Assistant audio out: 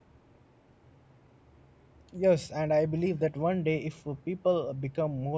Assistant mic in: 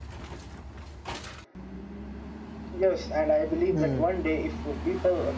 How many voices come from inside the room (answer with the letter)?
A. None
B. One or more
B